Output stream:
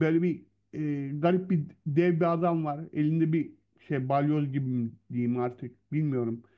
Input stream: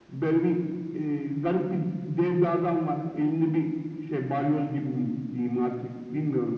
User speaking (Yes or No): No